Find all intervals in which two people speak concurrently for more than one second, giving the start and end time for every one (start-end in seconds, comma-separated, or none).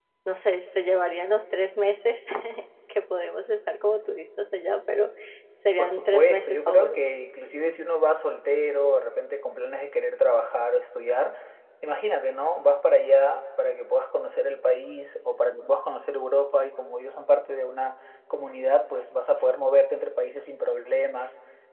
5.8-7.0